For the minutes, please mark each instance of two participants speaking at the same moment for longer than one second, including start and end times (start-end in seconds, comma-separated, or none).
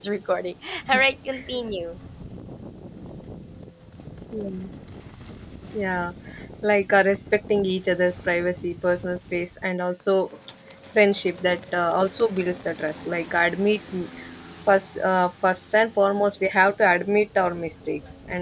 none